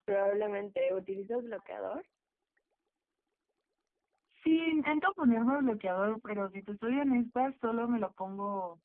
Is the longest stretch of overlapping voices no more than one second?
Yes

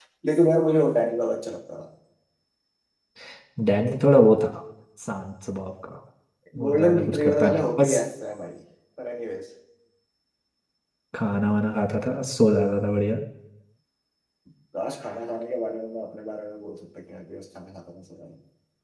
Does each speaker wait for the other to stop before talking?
No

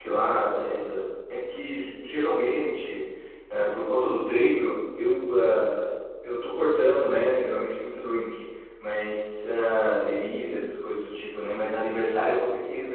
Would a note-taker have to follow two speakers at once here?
No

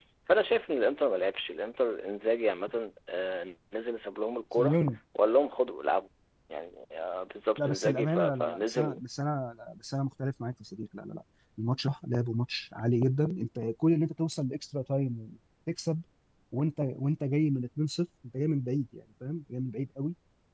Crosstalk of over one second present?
Yes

